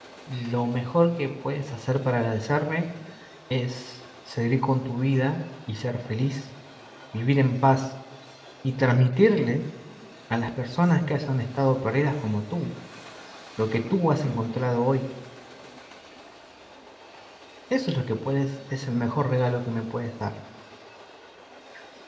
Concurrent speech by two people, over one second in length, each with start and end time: none

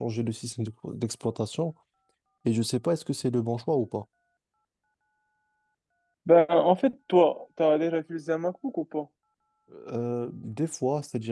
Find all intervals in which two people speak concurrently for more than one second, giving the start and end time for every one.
none

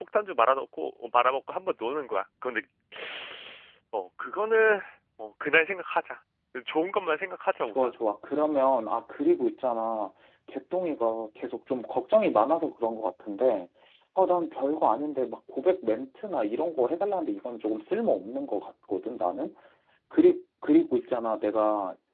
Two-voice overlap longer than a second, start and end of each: none

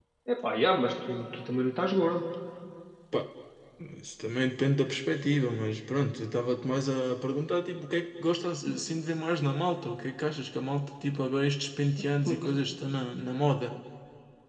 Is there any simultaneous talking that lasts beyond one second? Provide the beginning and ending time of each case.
none

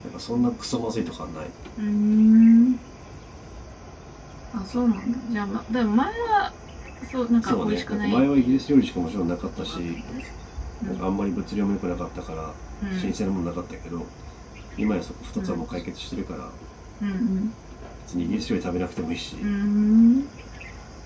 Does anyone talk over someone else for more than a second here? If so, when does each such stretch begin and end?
7.4-8.6

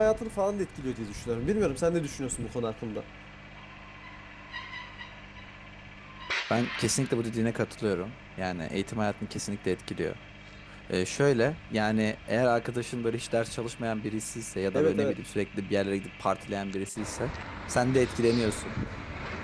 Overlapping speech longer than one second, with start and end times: none

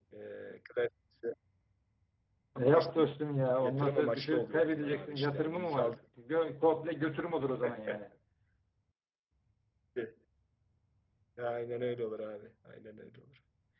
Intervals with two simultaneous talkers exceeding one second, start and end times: 3.6-6.0

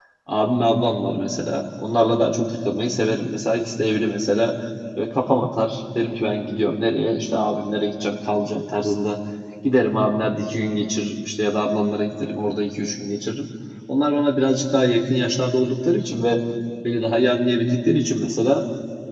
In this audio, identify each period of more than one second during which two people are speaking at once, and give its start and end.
none

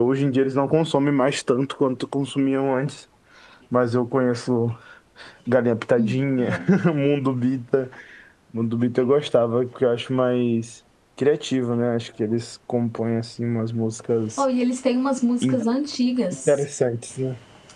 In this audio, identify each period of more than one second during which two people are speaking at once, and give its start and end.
none

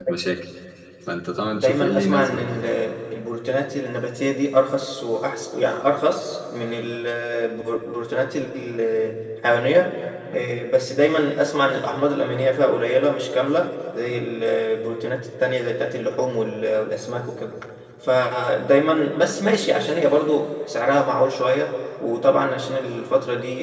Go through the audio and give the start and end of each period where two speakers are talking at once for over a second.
1.4-2.6

